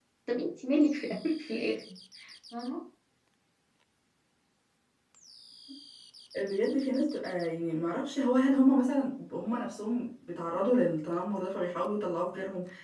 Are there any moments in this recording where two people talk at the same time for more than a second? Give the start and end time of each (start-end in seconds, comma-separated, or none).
none